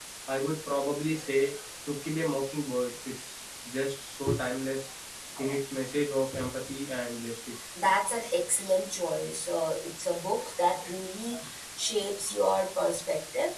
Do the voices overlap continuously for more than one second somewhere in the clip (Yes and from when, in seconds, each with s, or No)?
No